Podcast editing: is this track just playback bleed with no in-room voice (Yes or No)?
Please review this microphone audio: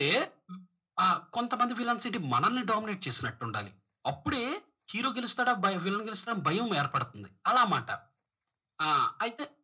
Yes